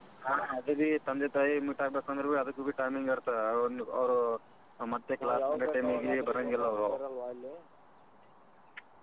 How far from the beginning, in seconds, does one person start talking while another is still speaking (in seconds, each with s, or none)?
5.2 s